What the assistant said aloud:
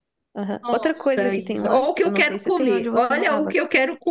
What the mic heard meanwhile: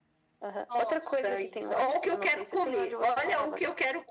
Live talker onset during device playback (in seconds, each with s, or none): none